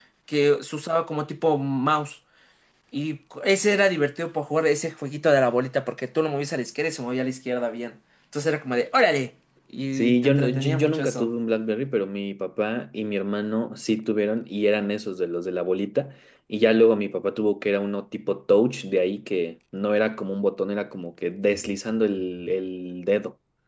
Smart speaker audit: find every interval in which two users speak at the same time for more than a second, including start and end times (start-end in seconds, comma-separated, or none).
9.9-11.3